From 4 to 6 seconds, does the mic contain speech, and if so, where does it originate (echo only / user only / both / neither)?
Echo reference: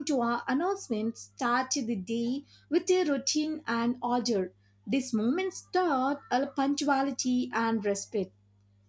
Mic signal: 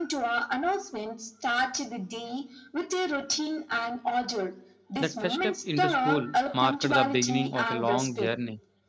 both